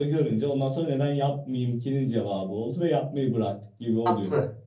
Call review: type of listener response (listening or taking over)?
taking over